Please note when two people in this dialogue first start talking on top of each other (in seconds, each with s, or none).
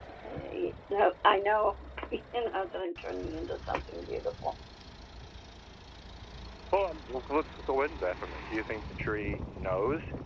none